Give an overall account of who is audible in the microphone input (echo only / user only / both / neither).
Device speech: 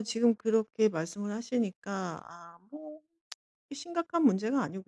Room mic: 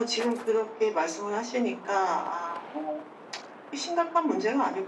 echo only